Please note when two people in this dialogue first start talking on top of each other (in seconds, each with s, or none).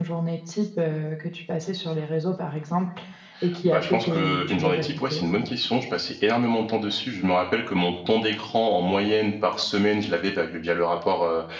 3.6 s